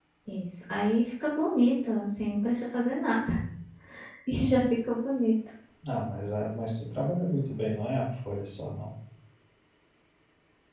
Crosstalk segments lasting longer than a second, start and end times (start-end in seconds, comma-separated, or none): none